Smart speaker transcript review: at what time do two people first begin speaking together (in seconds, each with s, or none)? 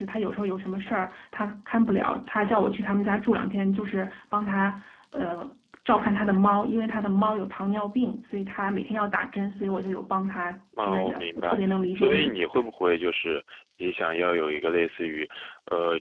10.8 s